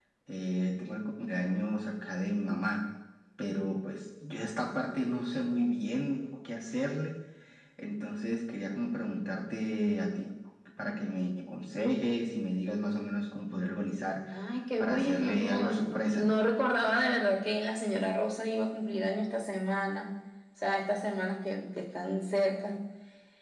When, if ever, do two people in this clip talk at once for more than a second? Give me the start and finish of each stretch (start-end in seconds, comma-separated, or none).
14.8-16.3